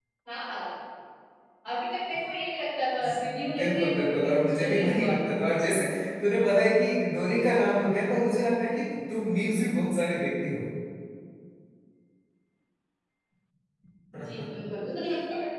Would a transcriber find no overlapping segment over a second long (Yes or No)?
No